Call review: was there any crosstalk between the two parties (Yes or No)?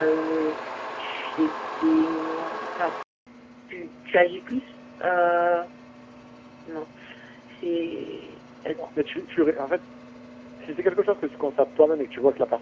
No